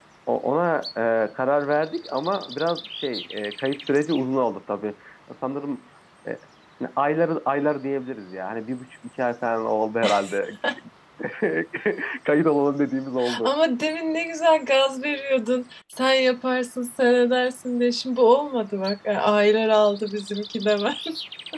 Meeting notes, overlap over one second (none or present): none